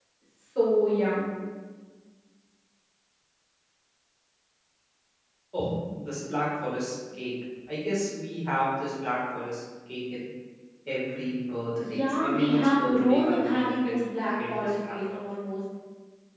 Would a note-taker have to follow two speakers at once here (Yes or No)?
Yes